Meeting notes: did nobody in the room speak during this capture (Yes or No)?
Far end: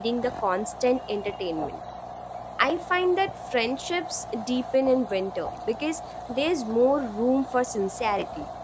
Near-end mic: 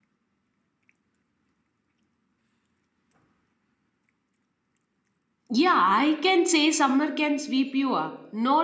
No